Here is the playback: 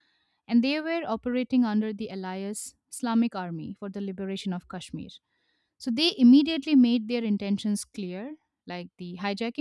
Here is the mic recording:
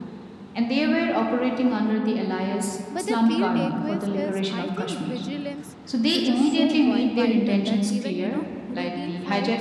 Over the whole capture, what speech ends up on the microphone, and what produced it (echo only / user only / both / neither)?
both